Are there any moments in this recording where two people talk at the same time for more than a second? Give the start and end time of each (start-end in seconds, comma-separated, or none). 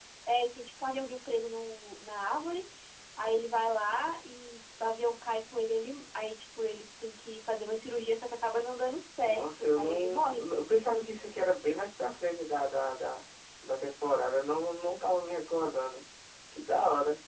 9.2-10.4